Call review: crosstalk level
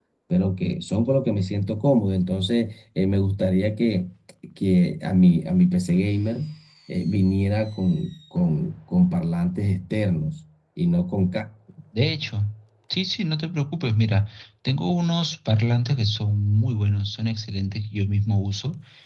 none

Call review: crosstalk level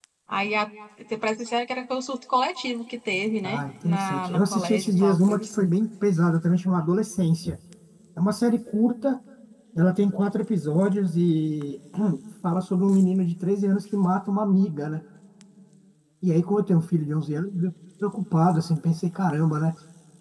present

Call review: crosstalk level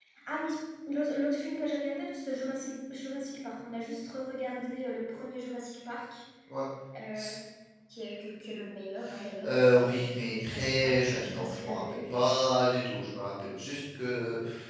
present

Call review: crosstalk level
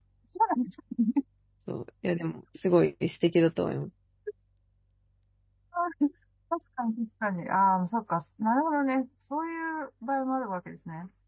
none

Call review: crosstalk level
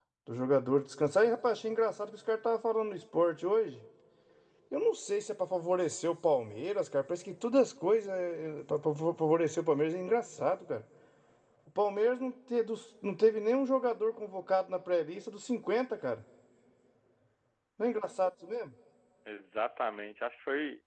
none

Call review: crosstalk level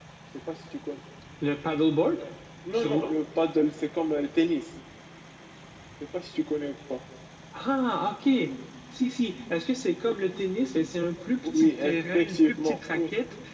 present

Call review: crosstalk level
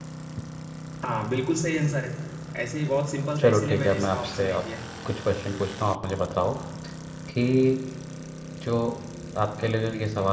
present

